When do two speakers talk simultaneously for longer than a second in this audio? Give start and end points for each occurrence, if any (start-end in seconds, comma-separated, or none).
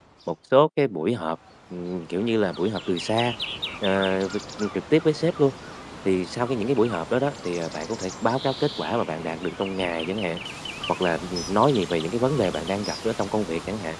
none